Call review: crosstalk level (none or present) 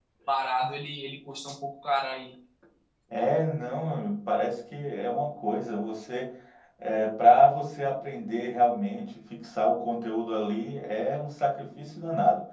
none